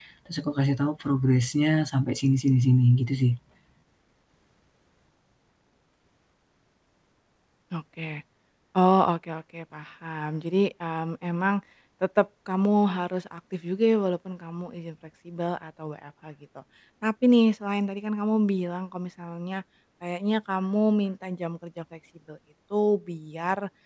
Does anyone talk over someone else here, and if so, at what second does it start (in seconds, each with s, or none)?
none